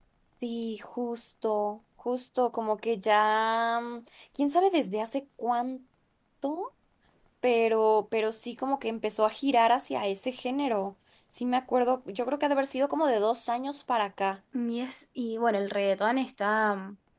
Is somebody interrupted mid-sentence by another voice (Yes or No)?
No